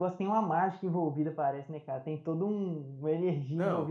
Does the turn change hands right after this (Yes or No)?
No